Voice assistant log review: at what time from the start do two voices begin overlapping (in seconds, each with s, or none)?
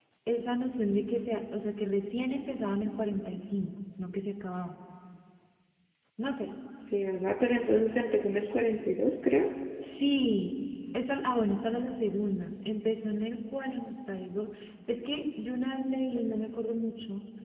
none